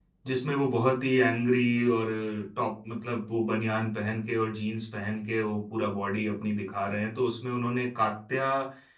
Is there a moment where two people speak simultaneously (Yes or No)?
No